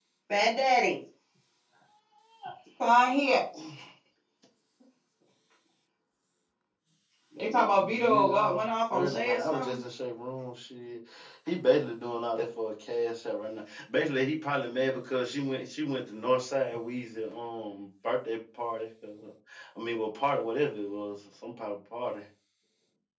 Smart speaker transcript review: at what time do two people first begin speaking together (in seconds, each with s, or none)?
7.4 s